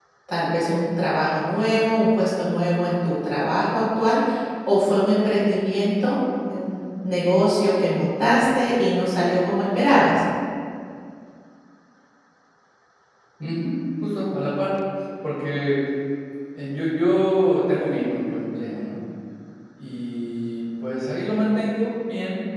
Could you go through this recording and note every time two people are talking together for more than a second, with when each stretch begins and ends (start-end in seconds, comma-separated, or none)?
none